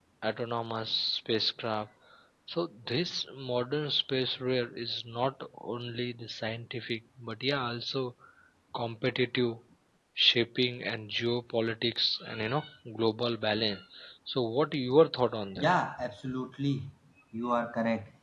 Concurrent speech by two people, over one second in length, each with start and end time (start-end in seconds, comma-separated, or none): none